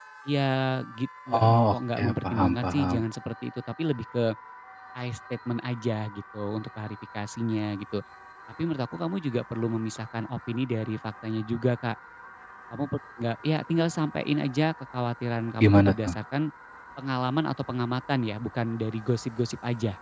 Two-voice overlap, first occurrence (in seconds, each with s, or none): 1.4 s